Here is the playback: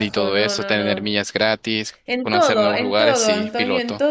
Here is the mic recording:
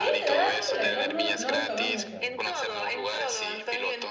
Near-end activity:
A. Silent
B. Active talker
B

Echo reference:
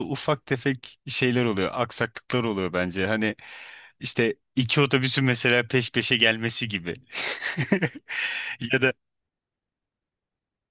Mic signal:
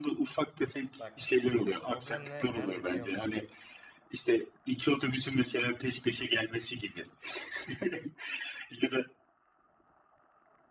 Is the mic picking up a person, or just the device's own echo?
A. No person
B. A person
B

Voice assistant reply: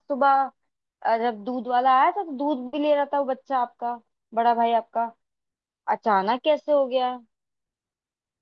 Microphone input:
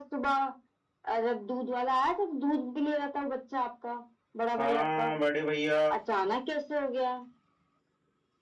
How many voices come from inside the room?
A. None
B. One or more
B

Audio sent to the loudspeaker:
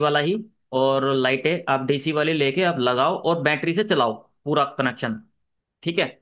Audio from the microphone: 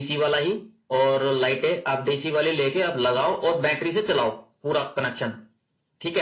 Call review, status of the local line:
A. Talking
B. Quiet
B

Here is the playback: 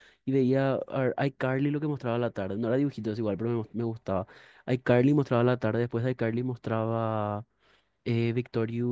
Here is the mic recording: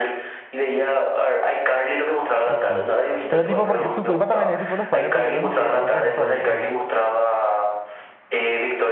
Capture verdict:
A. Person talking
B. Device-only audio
A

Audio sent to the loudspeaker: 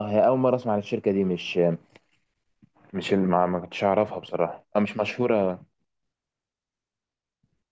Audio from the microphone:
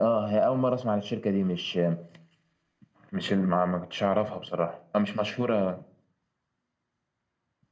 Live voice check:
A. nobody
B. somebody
A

